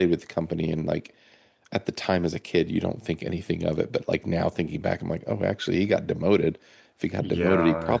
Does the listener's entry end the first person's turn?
No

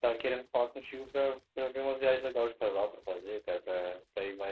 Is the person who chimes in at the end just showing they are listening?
Yes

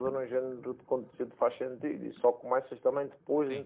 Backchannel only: Yes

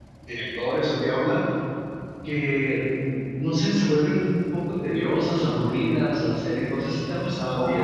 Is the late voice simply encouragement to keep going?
No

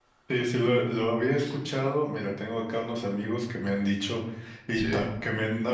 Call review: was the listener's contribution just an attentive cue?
Yes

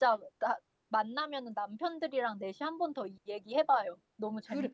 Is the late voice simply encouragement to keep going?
No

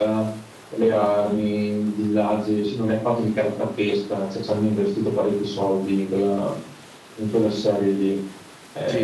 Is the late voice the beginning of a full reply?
Yes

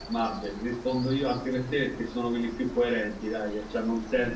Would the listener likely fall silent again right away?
Yes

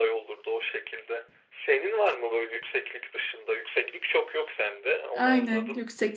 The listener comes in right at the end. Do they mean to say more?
Yes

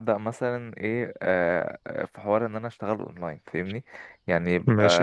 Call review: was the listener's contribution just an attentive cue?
Yes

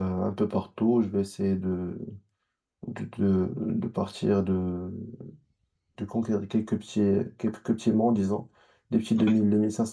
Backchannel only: Yes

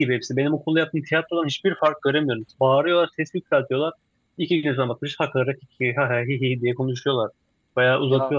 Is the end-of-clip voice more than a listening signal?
No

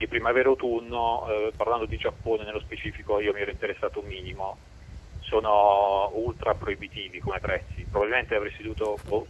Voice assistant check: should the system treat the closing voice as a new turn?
No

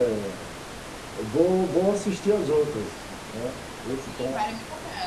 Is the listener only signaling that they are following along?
No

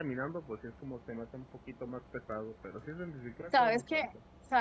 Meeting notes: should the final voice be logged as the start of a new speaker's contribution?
Yes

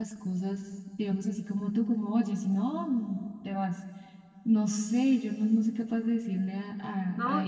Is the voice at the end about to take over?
Yes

